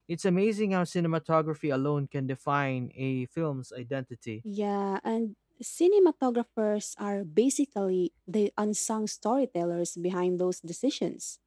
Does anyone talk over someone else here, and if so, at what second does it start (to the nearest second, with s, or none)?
none